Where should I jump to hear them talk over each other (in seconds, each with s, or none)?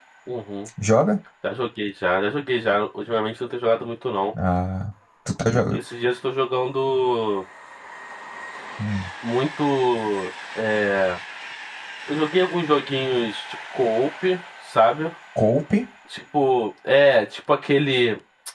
none